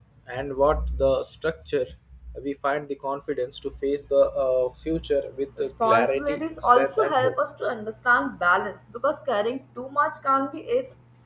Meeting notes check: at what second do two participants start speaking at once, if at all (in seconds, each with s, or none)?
5.8 s